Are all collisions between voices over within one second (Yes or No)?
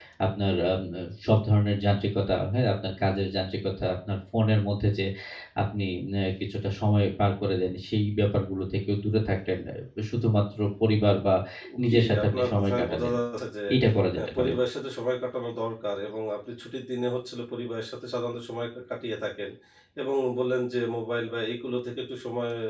No